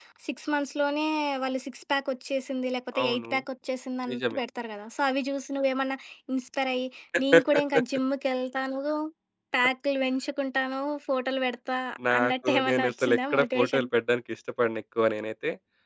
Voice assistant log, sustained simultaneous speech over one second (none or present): present